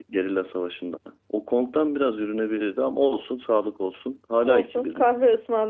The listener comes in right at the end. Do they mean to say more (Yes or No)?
Yes